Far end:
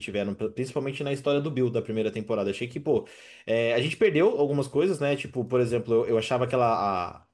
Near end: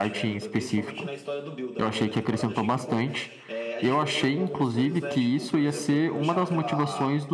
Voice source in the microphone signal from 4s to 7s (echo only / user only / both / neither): both